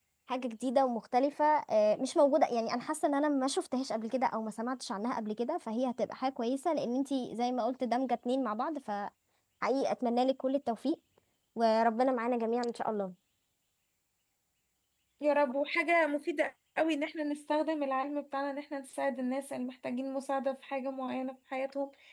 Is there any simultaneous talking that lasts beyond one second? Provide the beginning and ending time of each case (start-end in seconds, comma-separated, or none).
none